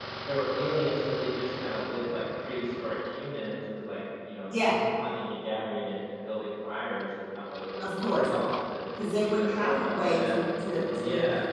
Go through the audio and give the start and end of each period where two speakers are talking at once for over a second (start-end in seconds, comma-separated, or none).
9.2-10.4